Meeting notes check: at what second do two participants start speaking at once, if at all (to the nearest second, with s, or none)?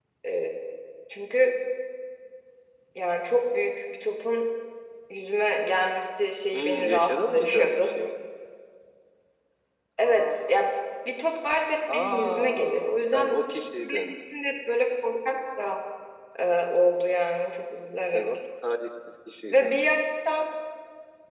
7 s